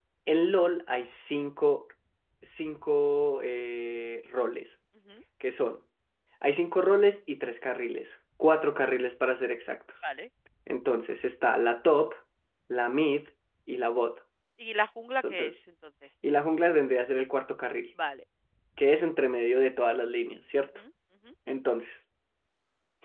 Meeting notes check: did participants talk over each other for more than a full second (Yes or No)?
No